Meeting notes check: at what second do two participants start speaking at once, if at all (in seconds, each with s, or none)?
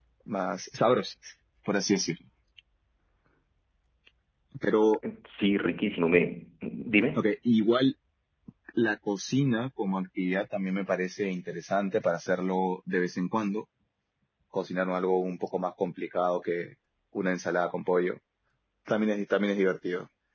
none